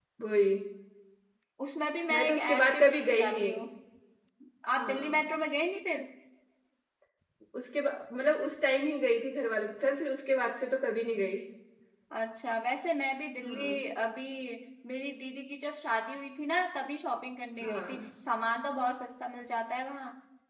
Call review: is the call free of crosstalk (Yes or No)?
No